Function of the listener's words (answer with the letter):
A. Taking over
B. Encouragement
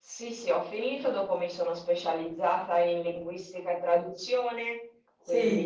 B